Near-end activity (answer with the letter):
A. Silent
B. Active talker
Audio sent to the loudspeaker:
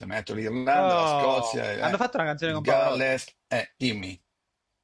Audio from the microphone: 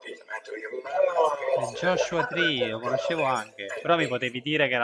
B